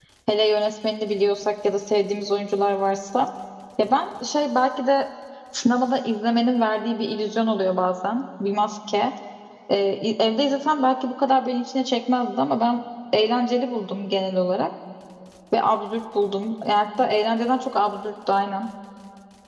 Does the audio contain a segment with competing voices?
No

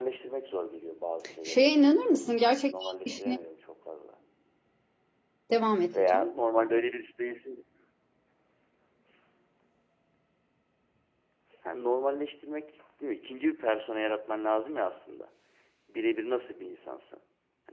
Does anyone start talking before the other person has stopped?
Yes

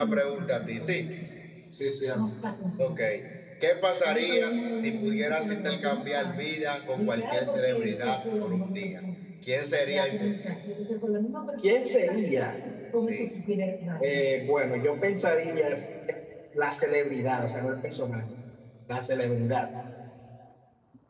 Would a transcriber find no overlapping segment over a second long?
No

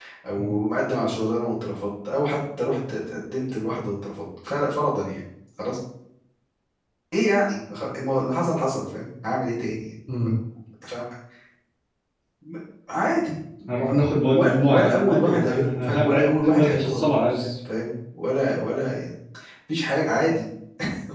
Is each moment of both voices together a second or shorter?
No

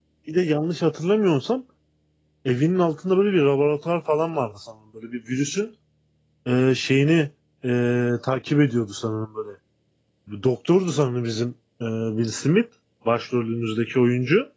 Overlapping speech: No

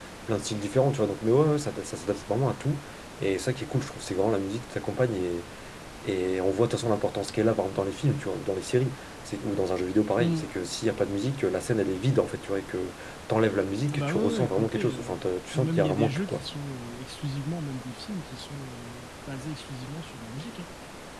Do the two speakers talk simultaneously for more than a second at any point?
Yes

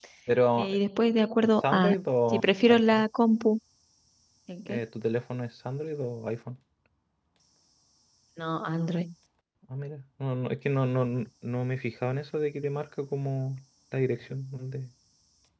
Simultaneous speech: Yes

